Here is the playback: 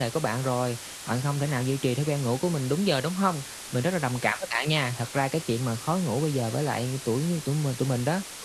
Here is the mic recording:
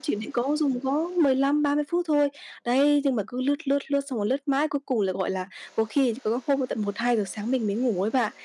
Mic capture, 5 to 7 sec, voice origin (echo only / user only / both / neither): user only